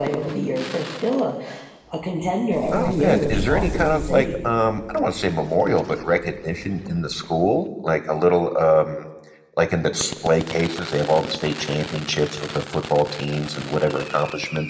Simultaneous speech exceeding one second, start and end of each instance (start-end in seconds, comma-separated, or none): 2.7-4.2